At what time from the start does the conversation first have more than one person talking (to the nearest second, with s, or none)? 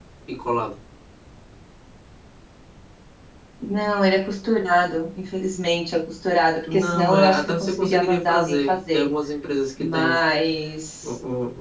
7 s